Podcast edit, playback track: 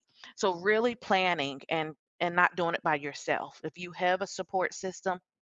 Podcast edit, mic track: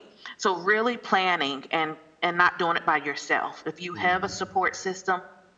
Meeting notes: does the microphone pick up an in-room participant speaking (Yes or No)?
Yes